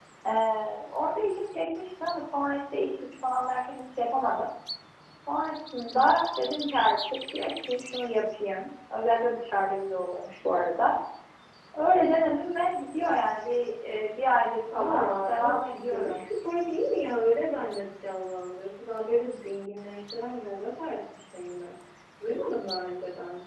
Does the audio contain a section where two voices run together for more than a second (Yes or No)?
Yes